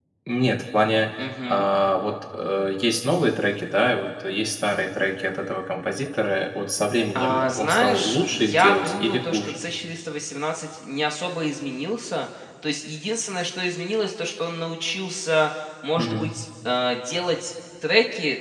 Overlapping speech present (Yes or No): Yes